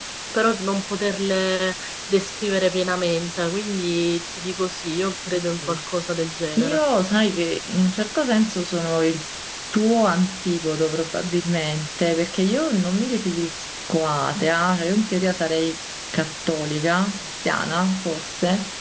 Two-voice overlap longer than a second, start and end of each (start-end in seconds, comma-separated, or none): none